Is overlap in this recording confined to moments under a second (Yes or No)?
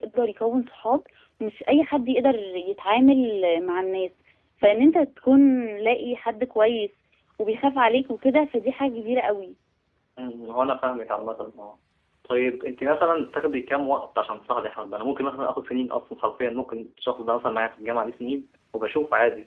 Yes